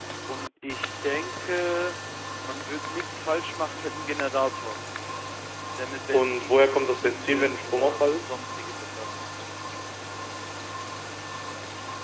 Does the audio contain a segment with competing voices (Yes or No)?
Yes